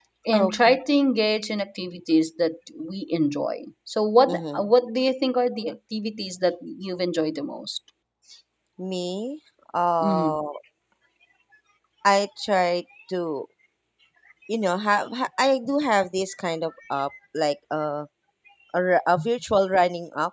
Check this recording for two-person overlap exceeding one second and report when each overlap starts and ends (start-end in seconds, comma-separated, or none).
none